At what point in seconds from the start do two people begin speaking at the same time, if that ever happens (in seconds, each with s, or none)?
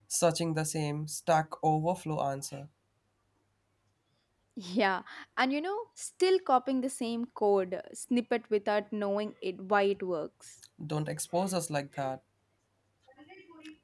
none